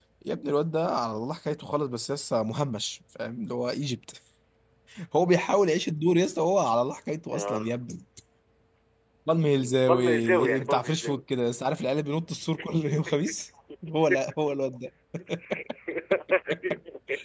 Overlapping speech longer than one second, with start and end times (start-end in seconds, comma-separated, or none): 9.8-11.2